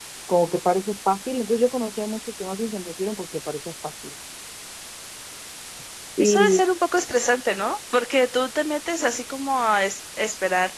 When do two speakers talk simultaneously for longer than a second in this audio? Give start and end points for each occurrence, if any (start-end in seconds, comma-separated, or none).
none